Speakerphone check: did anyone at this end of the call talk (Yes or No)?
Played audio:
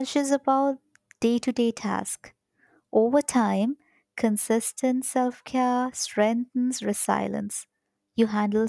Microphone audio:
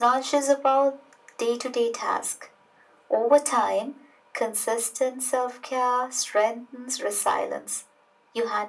No